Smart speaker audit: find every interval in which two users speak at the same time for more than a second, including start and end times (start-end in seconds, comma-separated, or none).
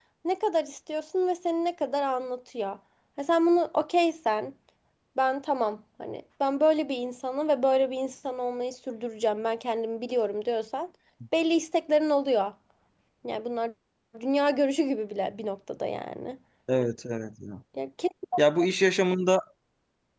none